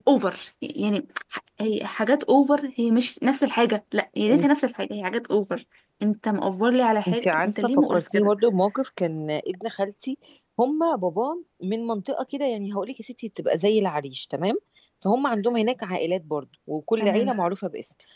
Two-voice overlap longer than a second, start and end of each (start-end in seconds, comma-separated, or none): 7.1-8.3